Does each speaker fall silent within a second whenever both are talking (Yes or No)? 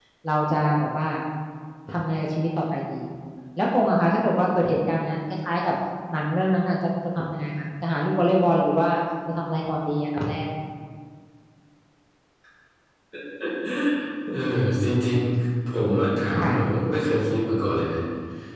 Yes